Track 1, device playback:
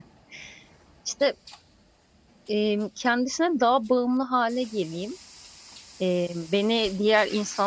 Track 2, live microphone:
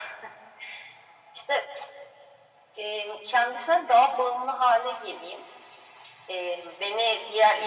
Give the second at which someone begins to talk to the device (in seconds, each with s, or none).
none